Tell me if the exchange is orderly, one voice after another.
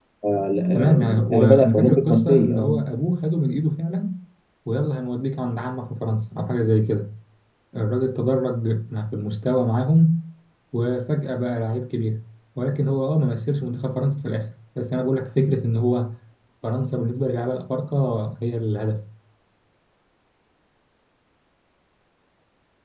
No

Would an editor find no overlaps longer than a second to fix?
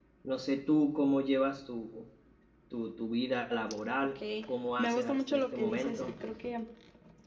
No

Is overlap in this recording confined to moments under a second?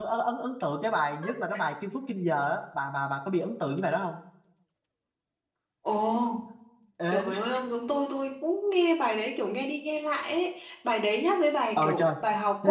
Yes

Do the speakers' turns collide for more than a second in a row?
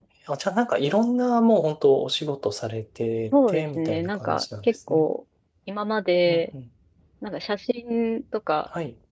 Yes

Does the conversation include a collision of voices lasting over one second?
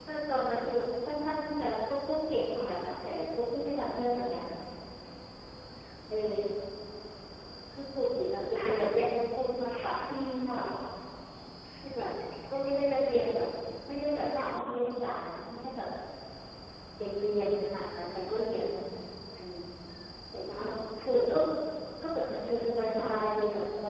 No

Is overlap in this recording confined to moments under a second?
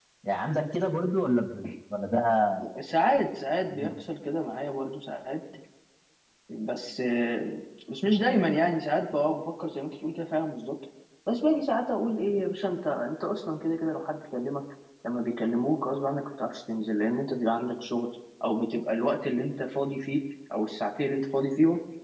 Yes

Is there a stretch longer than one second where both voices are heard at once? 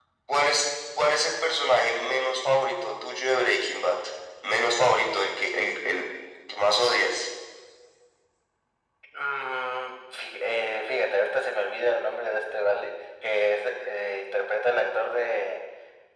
No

